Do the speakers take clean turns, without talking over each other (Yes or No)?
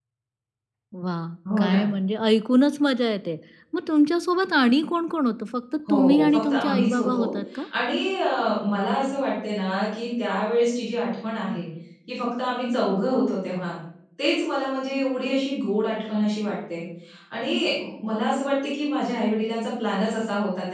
No